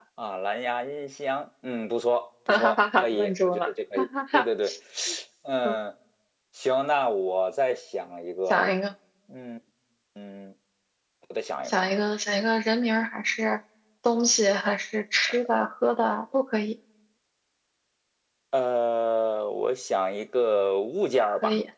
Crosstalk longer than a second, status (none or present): present